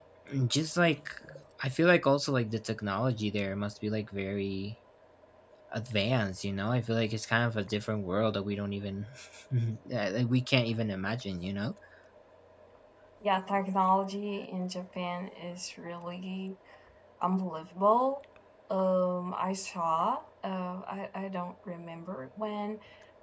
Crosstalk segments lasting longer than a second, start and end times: none

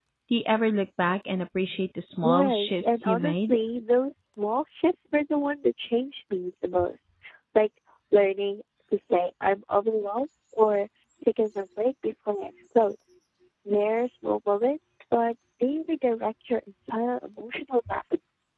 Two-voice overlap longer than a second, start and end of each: 2.2-3.6

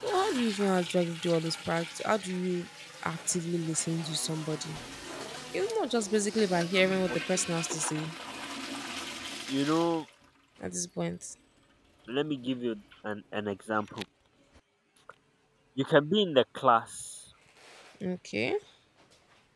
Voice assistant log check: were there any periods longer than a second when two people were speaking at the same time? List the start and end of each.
none

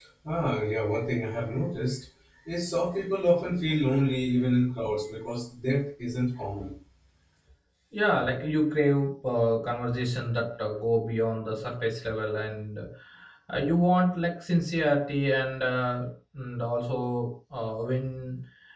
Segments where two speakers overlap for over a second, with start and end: none

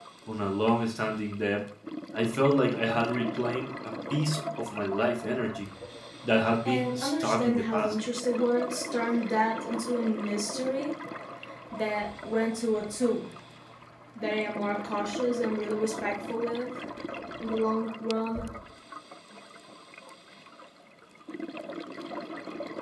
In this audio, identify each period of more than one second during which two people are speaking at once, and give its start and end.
6.7-8.0

